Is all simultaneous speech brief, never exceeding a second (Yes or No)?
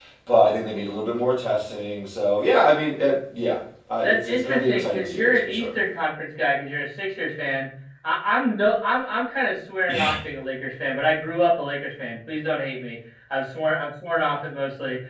No